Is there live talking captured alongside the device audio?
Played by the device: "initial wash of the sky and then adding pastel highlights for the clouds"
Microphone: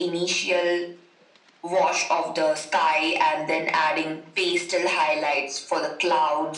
No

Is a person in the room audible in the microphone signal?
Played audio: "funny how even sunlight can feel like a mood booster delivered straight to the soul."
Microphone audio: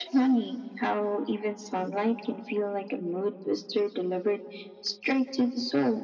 No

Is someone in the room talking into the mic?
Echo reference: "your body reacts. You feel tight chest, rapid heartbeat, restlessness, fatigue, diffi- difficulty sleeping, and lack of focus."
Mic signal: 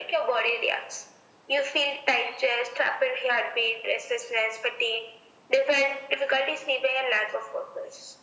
No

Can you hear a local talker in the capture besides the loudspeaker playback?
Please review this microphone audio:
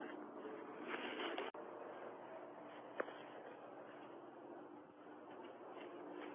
No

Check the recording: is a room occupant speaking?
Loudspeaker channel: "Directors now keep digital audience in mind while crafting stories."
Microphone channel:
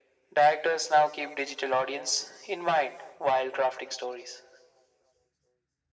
No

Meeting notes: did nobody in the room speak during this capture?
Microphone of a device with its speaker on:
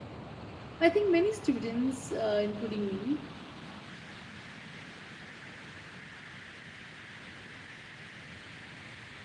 No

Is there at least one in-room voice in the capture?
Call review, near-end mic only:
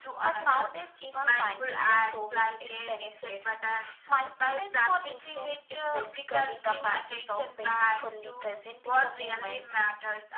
No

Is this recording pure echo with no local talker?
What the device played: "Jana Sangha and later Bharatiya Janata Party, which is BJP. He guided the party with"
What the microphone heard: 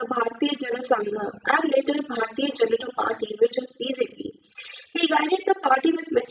Yes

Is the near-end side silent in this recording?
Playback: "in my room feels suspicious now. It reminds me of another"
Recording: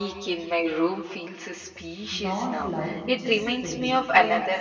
No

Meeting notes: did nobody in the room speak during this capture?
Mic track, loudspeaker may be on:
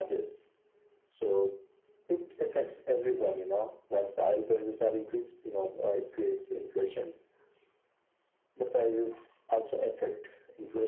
Yes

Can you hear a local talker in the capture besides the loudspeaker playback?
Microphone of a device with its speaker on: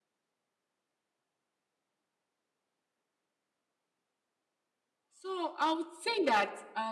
Yes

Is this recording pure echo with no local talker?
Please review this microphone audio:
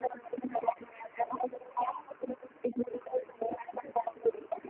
Yes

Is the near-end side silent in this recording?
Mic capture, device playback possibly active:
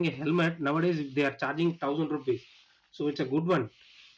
No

